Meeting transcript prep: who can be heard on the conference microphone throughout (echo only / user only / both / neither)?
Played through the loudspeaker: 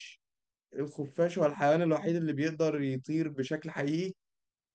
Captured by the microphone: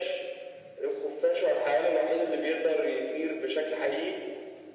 echo only